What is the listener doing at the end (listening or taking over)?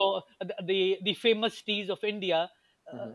listening